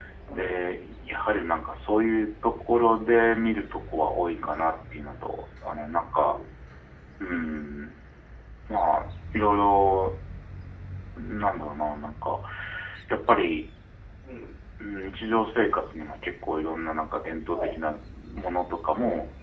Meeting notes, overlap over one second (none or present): none